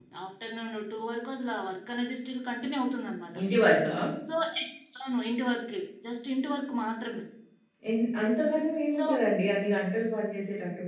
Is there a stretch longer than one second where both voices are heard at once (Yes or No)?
No